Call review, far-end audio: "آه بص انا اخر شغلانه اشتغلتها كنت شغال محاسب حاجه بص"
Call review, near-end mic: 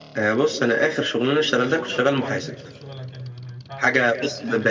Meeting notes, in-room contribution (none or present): present